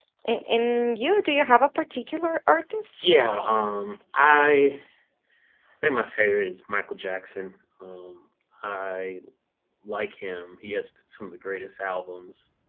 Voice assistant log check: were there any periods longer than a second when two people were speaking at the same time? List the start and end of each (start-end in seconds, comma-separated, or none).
none